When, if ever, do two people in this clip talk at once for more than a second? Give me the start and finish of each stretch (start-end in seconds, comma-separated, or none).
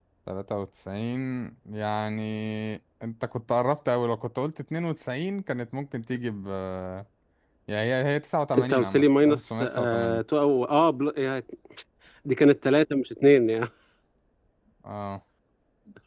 8.6-10.2